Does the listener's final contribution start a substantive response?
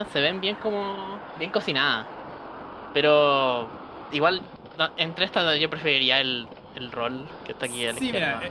Yes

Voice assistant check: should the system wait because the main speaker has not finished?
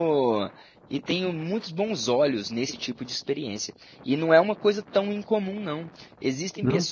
Yes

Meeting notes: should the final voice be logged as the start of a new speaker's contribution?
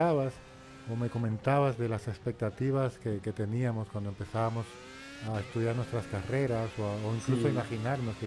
No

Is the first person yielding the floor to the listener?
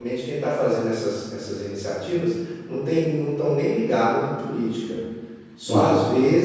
No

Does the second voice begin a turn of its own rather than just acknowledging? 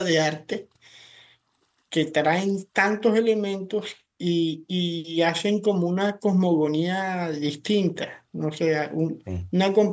No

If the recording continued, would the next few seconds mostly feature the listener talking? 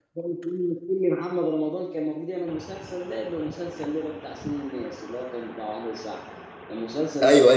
Yes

